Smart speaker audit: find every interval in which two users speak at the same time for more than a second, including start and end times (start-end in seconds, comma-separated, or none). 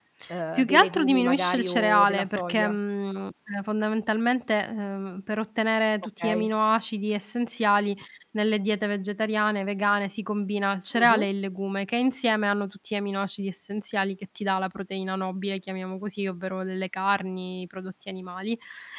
0.6-2.8